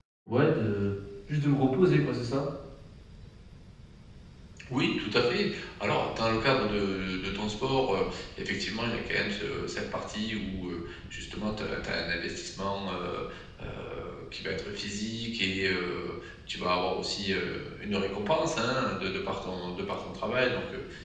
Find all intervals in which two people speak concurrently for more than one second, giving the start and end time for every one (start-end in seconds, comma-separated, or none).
none